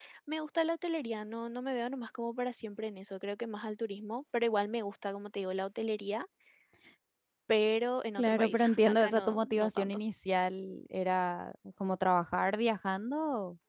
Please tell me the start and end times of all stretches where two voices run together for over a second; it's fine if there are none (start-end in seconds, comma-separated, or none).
8.2-10.0